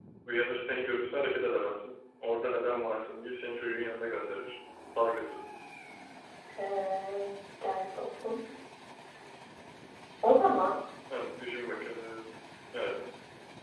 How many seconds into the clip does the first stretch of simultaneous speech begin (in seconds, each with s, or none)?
none